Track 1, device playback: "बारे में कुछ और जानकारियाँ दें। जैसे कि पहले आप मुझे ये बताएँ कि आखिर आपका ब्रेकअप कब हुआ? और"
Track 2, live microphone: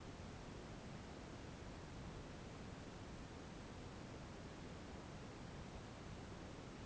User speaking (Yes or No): No